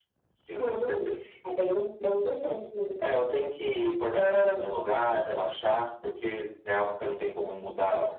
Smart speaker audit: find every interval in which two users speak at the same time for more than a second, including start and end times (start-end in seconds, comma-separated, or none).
none